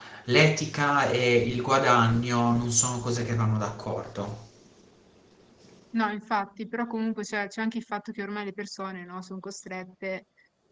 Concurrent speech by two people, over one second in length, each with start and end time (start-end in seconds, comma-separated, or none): none